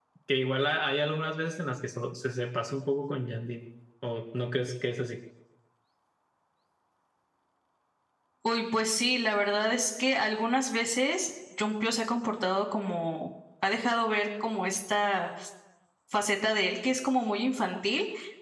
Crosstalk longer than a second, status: none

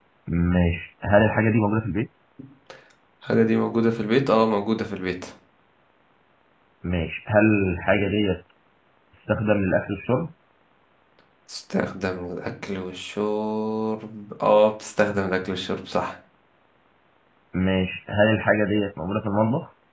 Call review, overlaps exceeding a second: none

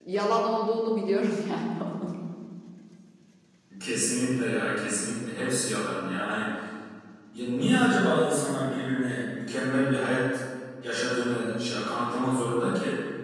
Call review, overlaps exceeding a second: none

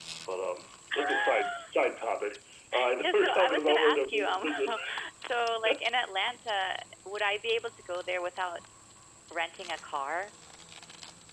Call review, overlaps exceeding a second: present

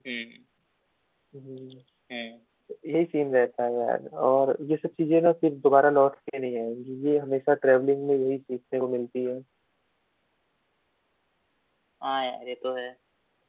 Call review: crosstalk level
none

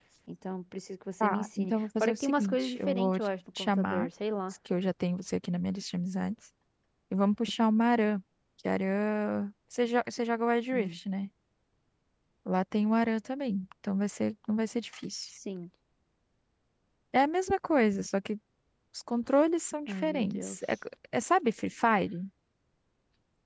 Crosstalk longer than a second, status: present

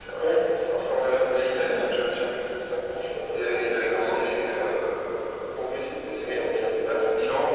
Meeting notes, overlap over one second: present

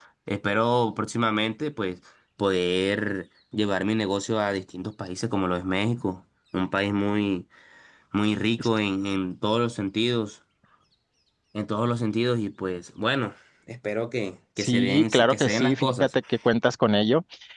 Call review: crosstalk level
present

